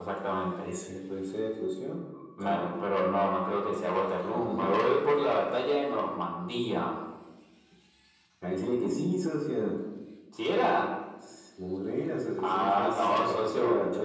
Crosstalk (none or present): present